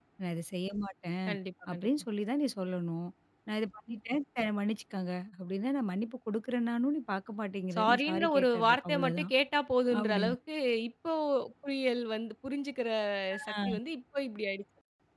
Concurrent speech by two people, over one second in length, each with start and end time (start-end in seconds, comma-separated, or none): 7.8-9.3